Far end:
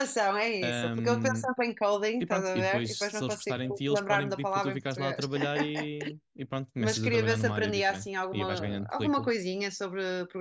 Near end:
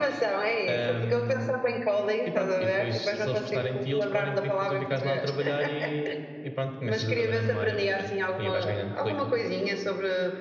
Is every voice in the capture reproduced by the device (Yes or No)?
Yes